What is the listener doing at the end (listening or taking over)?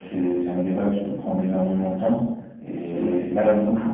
listening